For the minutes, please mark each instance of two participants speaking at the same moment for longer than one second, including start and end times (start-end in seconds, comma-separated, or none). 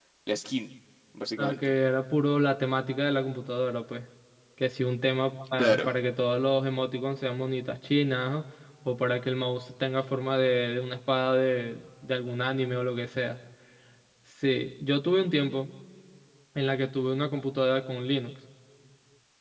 none